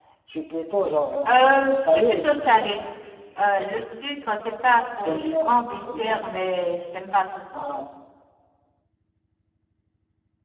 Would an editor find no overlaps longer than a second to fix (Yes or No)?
No